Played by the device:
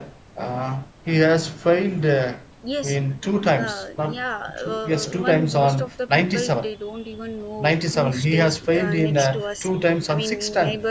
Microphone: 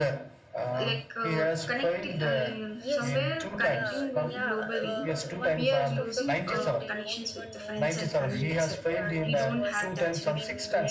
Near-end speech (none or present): present